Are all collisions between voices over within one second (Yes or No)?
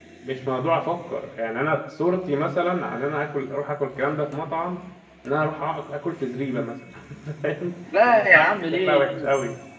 No